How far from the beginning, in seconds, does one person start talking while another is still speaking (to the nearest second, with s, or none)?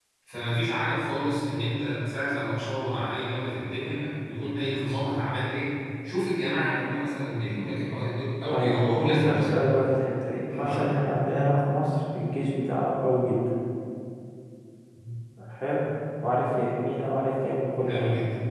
9 s